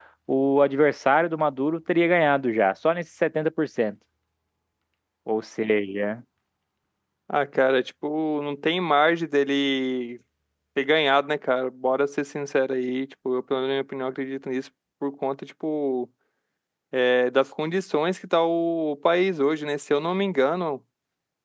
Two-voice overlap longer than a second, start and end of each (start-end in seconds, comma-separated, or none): none